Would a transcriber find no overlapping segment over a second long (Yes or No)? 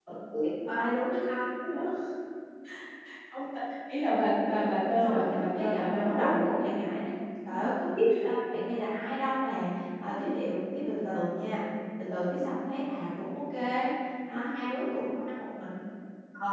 No